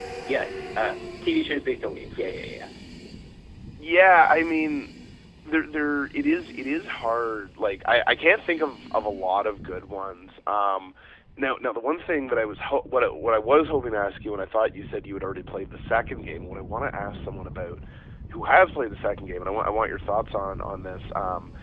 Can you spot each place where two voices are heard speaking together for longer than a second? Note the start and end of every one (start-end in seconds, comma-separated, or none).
none